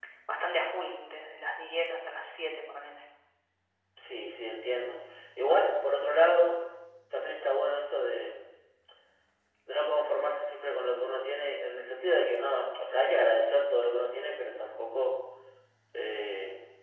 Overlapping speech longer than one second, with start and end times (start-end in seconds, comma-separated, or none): none